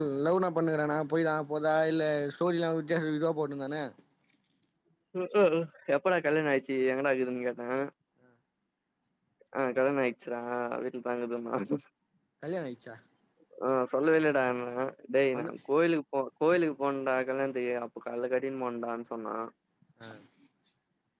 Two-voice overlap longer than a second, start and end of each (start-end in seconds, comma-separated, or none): none